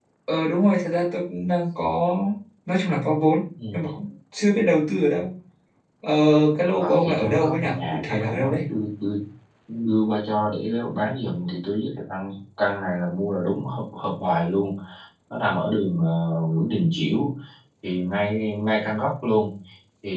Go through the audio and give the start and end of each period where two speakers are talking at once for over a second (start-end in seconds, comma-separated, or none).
6.8-8.6